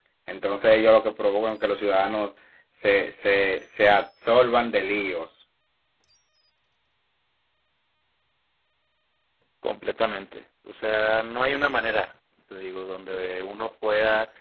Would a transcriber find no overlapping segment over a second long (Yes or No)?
Yes